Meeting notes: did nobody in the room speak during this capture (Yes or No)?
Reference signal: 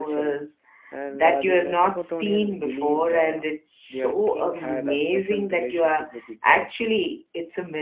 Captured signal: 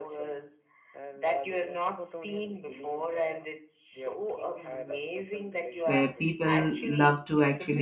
No